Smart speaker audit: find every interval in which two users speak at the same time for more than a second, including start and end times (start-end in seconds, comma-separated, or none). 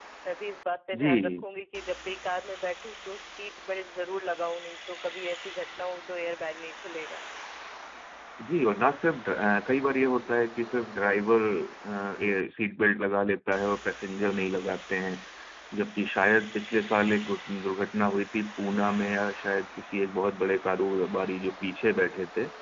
none